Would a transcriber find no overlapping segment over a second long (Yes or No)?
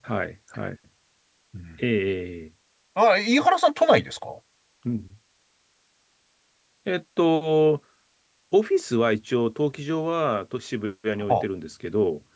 Yes